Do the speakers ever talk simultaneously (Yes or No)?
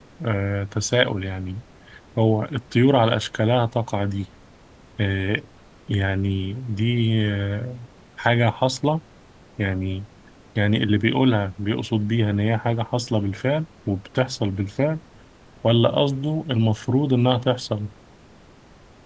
No